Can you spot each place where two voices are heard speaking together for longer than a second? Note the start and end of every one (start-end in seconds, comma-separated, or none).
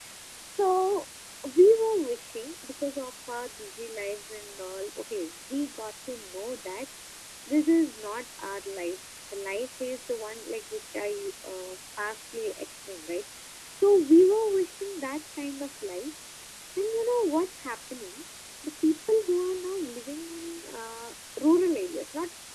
none